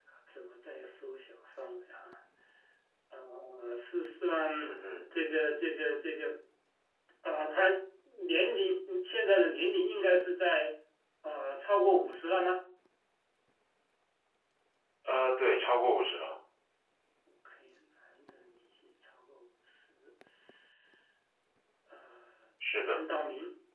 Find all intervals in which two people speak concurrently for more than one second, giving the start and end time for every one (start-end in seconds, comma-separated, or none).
none